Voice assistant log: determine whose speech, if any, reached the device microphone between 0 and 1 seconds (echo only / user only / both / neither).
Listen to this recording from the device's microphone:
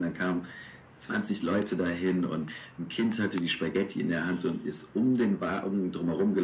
echo only